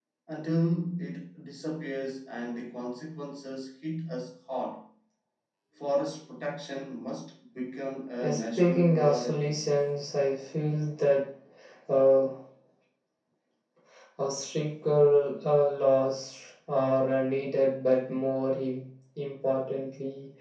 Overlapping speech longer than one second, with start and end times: 8.2-9.6

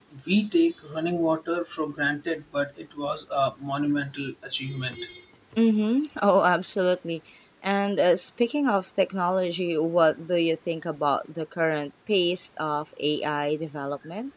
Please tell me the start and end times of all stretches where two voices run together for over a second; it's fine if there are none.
none

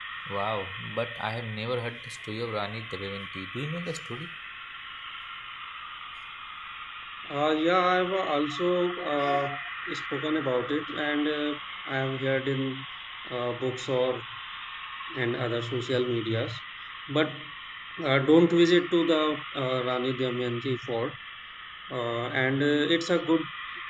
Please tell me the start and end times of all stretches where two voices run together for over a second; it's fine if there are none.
none

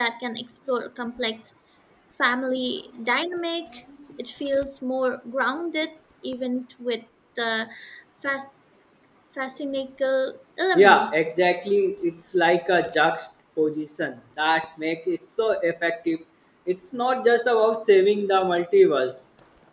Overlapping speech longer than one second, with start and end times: none

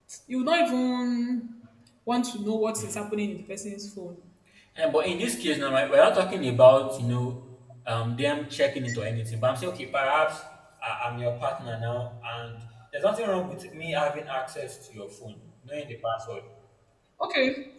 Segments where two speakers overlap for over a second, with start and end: none

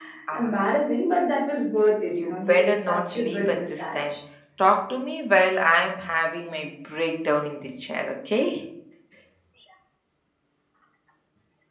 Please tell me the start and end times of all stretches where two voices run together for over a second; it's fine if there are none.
2.1-4.2

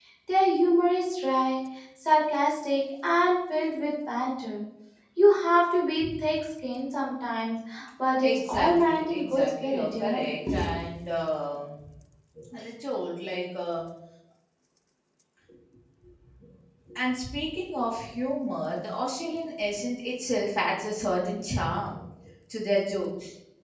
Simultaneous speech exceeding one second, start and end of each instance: 8.2-10.2

